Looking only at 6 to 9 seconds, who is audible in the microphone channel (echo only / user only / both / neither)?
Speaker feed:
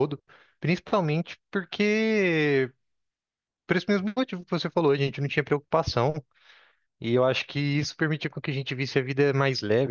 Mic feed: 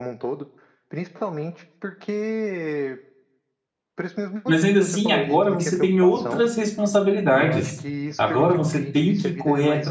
both